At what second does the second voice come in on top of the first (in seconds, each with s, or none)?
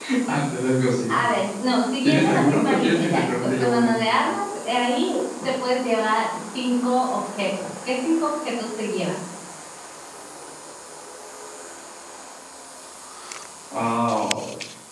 2.0 s